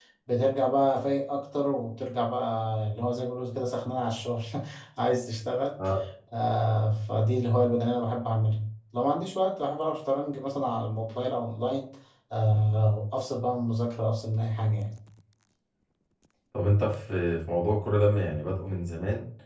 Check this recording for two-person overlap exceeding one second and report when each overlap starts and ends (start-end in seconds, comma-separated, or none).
none